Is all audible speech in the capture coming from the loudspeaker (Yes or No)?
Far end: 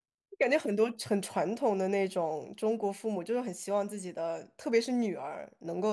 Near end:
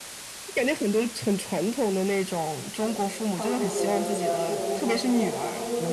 No